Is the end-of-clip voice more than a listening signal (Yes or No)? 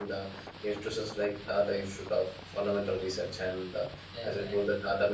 No